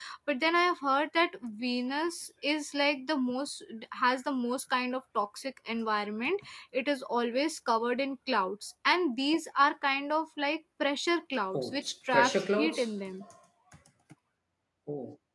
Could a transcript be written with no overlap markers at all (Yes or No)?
No